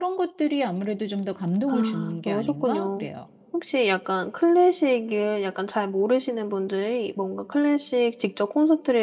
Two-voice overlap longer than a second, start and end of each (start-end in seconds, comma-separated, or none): 1.7-3.1